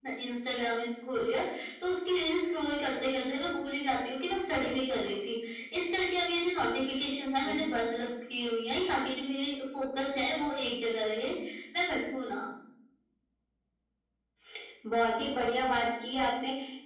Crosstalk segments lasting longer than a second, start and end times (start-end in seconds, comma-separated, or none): none